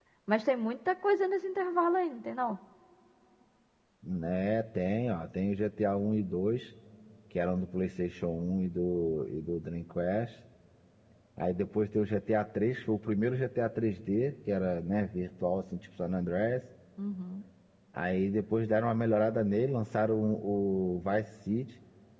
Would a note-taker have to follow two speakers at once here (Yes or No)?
No